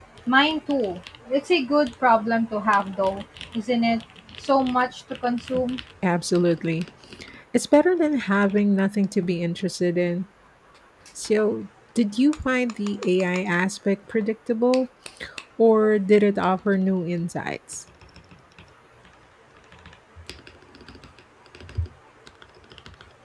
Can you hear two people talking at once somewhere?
No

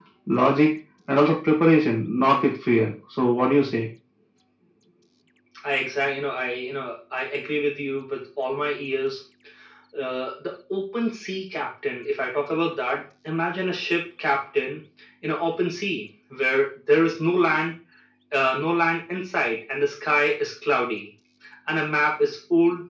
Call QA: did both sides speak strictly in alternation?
Yes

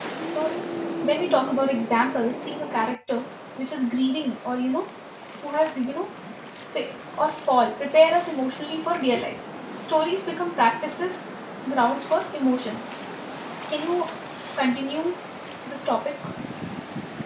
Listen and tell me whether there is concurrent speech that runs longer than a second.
No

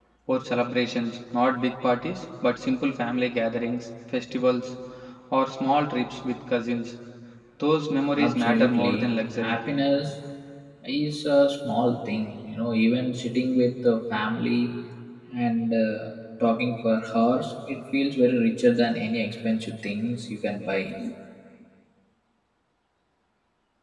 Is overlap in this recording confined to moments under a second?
No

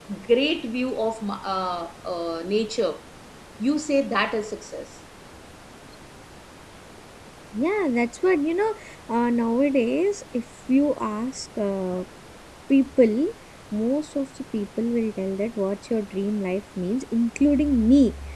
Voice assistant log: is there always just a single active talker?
Yes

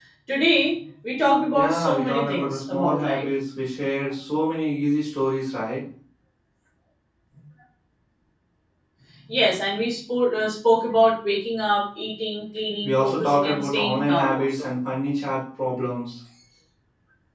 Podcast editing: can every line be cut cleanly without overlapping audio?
No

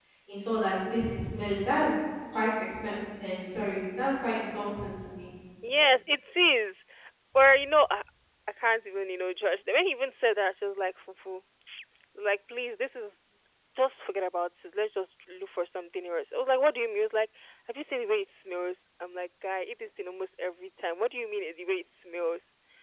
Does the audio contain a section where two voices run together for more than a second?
No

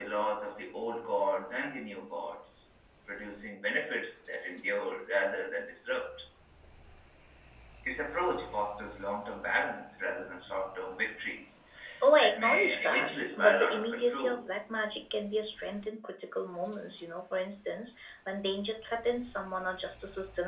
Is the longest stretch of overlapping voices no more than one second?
No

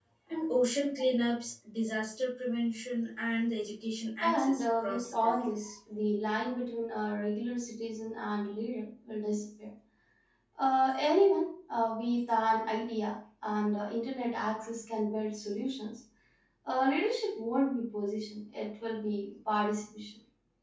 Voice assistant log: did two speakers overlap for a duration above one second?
Yes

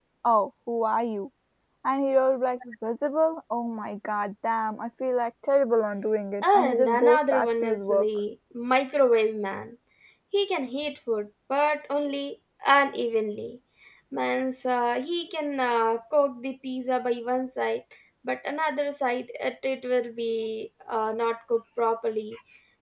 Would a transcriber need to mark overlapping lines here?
Yes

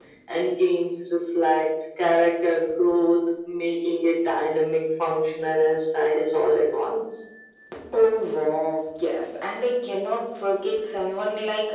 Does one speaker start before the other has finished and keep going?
No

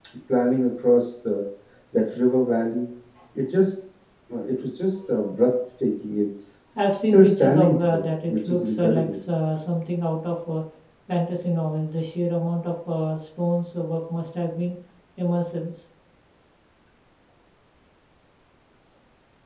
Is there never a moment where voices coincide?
No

